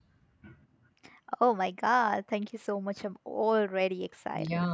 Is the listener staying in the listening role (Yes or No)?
No